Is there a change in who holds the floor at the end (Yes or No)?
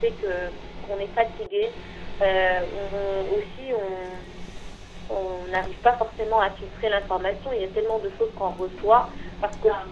No